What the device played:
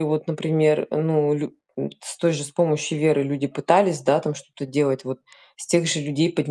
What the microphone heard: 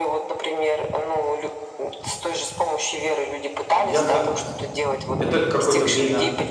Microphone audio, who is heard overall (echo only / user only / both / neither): both